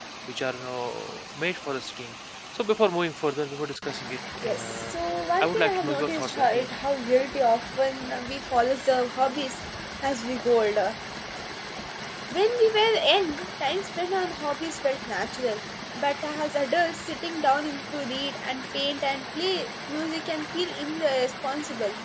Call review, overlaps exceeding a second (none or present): present